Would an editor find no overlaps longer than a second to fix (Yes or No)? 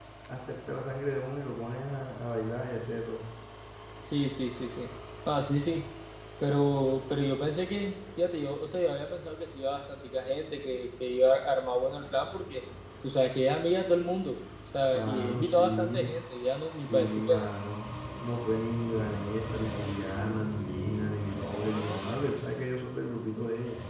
No